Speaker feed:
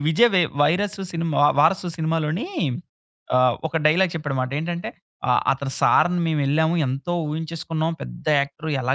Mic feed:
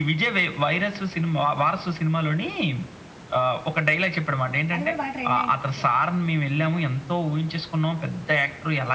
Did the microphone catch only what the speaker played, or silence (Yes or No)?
No